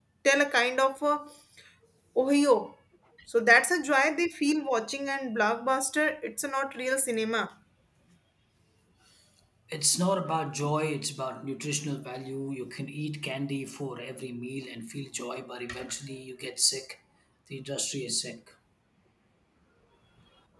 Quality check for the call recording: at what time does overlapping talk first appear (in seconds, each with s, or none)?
none